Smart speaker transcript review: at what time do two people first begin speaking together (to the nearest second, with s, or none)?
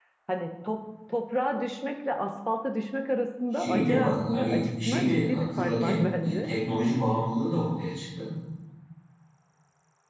4 s